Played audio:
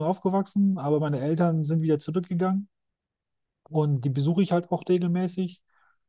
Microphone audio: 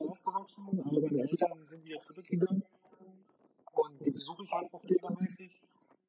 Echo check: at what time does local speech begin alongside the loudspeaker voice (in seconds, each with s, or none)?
none